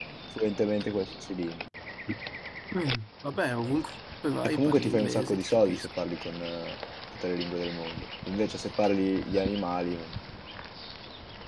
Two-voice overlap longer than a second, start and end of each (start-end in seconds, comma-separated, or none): 4.4-5.9